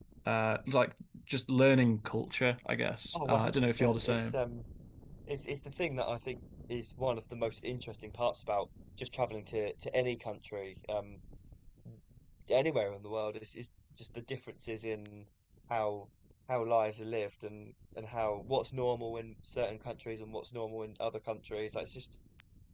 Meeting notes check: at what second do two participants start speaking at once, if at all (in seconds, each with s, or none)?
3.1 s